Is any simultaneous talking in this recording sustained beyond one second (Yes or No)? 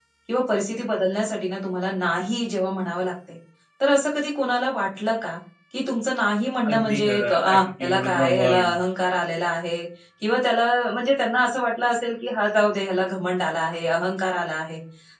Yes